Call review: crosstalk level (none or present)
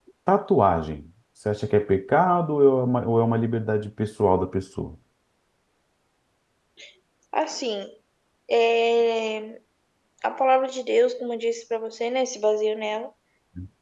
none